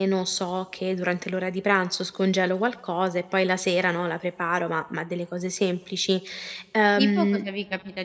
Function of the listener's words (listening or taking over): taking over